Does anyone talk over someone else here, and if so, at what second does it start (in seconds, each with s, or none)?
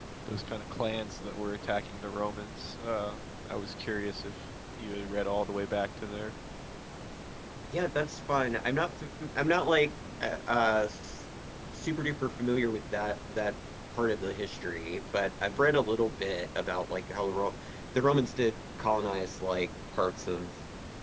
none